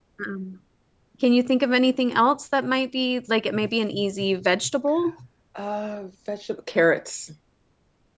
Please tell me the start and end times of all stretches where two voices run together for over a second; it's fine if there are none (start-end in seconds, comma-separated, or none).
none